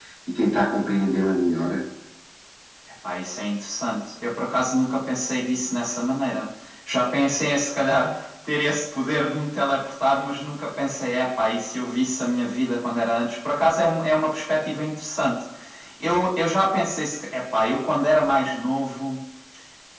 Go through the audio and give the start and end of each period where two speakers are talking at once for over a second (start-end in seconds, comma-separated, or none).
none